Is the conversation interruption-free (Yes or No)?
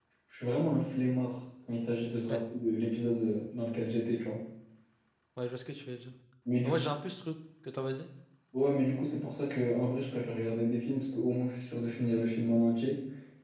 Yes